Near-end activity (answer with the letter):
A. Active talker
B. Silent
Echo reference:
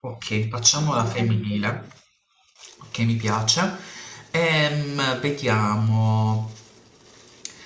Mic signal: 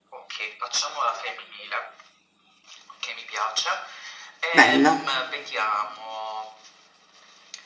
A